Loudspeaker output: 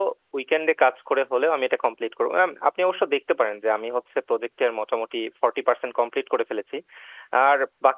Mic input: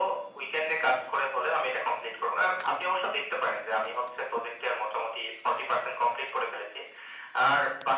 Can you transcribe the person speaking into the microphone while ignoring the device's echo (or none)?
none